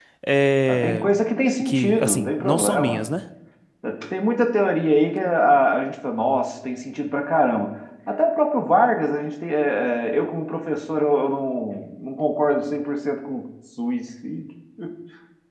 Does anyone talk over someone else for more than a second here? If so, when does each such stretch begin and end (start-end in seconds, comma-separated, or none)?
1.6-3.1